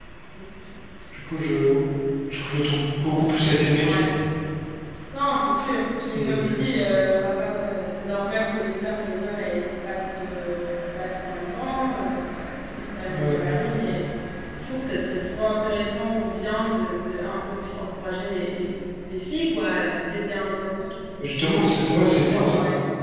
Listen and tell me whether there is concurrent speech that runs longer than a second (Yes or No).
No